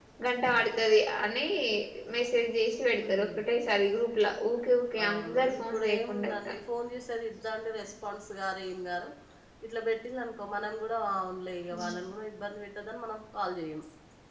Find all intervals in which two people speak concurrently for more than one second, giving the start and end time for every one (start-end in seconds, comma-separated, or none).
5.0-6.5